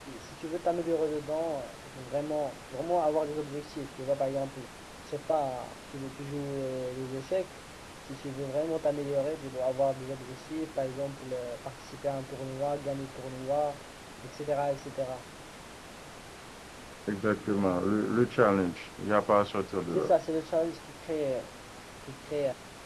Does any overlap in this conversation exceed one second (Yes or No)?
No